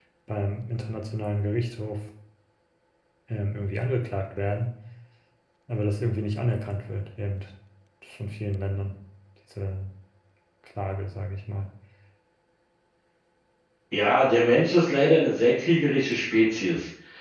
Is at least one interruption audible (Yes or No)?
No